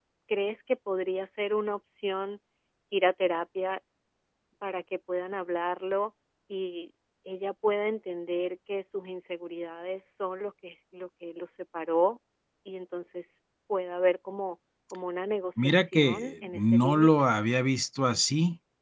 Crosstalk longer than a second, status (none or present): present